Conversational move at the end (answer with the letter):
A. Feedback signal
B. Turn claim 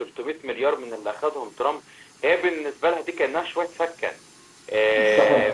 A